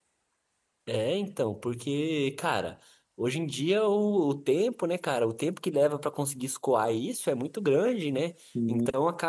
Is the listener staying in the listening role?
Yes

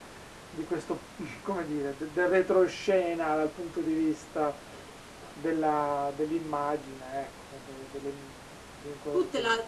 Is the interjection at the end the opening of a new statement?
Yes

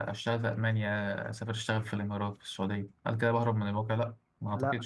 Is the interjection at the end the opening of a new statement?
Yes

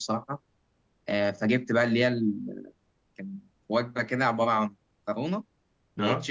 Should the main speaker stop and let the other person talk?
No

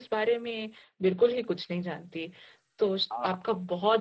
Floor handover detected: No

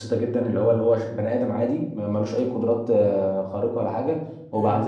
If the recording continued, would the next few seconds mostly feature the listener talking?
No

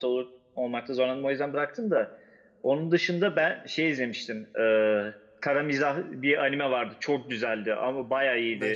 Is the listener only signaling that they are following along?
Yes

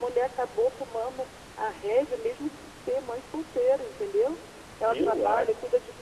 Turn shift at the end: No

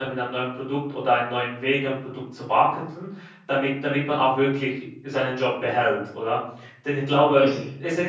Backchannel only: Yes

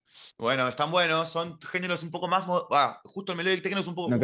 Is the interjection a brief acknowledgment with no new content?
No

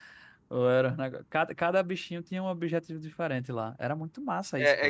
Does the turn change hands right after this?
Yes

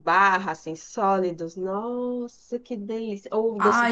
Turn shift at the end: Yes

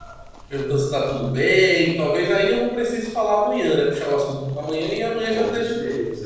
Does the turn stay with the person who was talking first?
No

